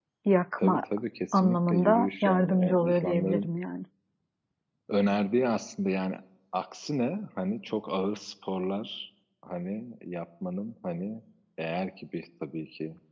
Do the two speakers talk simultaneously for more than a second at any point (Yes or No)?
Yes